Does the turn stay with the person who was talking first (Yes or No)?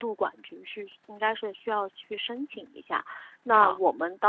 Yes